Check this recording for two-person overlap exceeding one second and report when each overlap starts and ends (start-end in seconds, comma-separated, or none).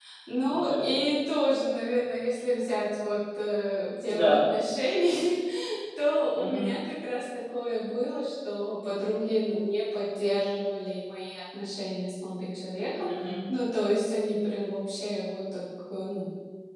none